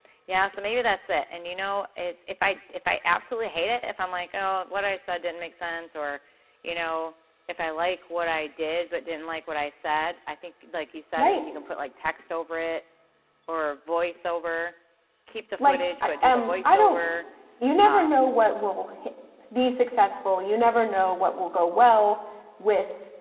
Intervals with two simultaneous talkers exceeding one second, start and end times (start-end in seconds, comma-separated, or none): 15.6-17.0